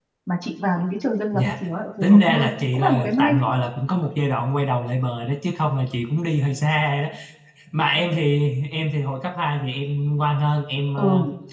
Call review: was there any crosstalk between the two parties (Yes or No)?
Yes